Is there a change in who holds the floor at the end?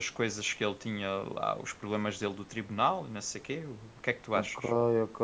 Yes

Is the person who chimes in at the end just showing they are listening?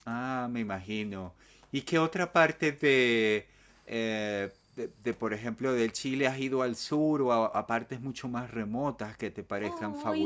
No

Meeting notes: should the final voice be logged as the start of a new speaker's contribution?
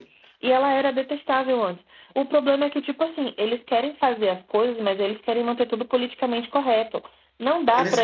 Yes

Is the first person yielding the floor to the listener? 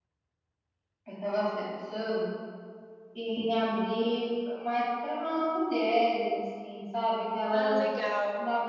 No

